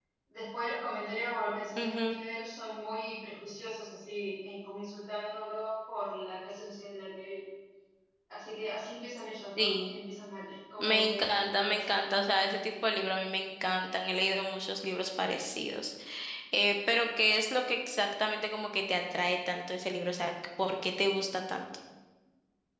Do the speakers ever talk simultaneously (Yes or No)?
Yes